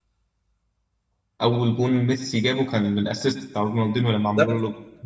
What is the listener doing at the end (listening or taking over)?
taking over